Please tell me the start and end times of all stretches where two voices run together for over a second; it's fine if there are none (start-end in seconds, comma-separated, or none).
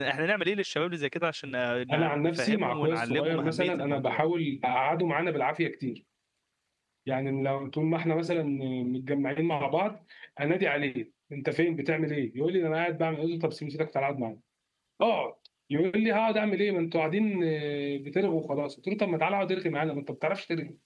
1.9-4.2